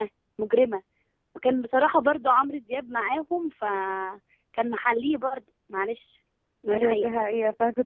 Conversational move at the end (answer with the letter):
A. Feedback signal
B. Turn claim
B